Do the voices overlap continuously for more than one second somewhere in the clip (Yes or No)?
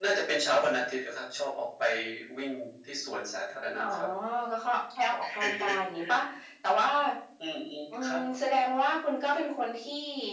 No